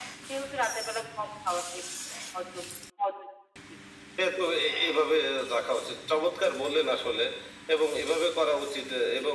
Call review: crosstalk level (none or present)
none